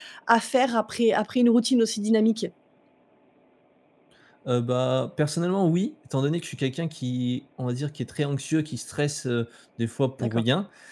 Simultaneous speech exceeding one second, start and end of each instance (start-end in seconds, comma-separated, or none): none